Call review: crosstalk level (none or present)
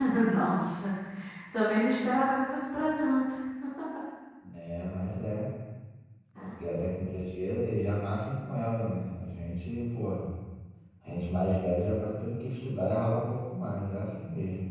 none